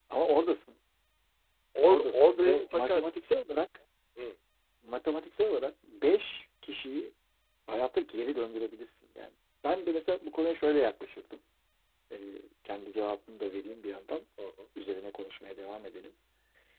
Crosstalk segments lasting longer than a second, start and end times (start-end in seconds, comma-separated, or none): 1.8-3.1